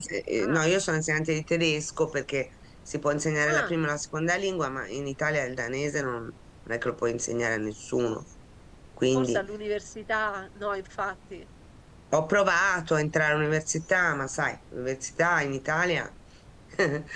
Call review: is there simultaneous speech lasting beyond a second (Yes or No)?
No